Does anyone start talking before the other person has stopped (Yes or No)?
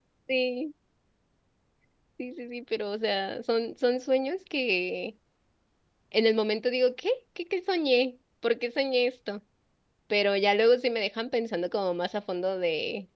No